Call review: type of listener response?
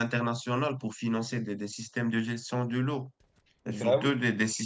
listening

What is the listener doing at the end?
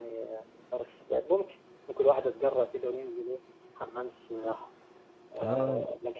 listening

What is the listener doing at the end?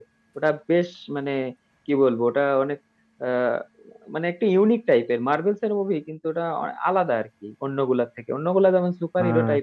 listening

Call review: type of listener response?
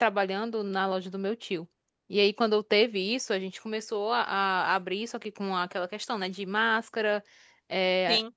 listening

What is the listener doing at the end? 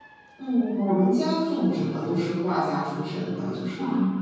listening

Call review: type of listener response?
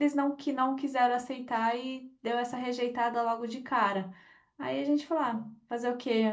listening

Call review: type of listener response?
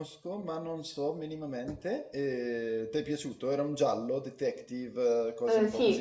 taking over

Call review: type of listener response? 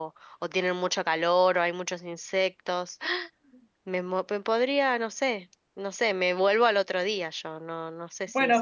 taking over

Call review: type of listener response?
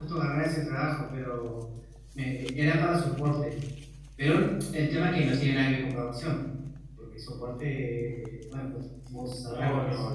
taking over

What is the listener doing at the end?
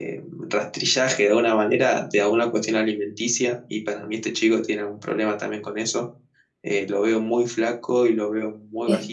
taking over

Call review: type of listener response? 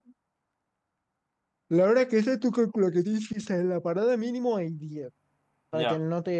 listening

